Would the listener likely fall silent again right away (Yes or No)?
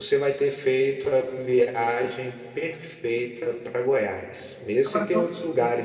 Yes